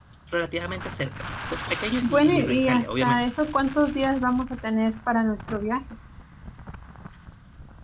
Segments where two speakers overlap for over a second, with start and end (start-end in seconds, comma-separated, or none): 2.0-3.2